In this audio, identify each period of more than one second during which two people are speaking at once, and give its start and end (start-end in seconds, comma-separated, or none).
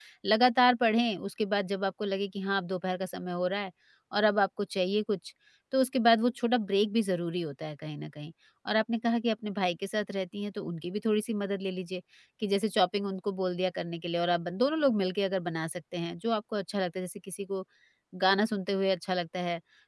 none